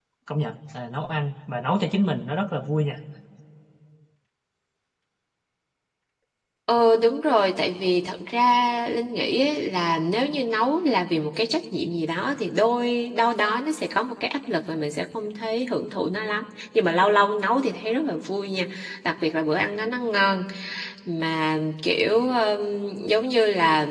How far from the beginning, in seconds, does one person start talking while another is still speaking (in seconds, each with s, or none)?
none